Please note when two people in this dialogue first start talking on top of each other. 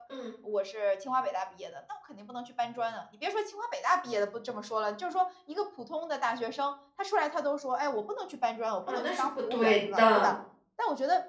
9 s

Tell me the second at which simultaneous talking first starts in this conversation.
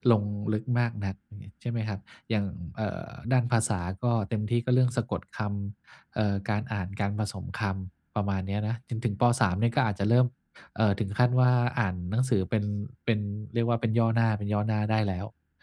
none

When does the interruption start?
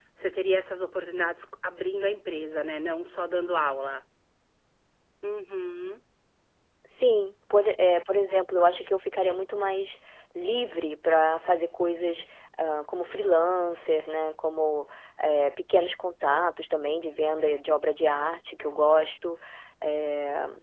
none

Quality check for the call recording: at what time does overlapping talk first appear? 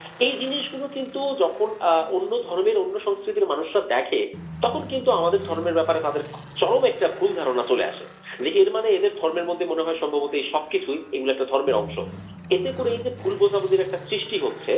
none

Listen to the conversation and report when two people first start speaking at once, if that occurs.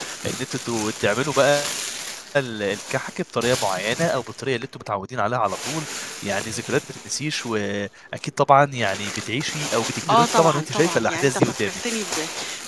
10 s

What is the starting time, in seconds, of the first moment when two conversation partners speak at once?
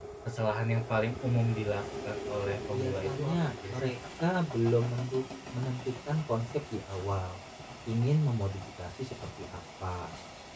3 s

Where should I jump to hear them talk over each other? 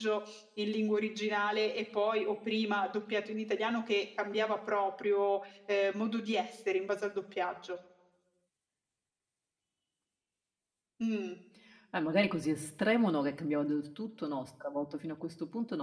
none

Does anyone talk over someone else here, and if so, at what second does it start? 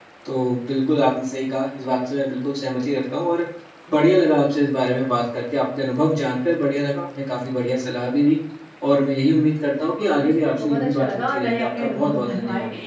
10 s

